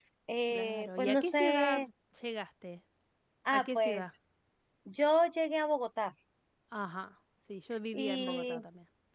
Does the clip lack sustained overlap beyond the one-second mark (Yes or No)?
No